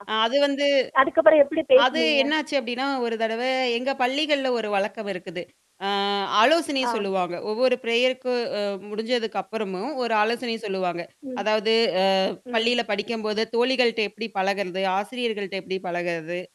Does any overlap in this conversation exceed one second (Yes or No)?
No